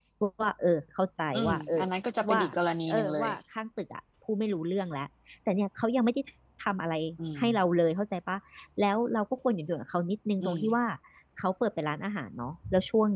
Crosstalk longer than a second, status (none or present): none